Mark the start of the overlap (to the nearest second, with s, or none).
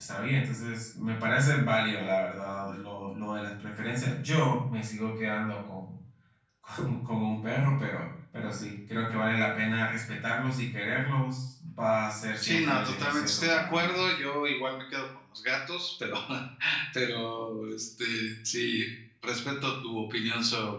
12 s